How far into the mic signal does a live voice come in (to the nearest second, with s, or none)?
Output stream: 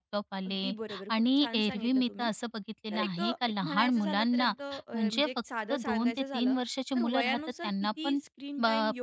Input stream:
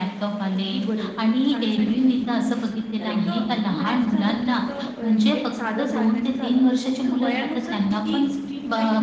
none